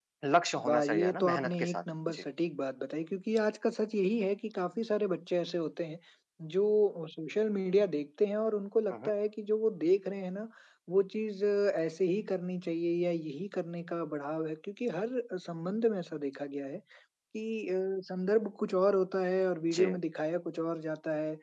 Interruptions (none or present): present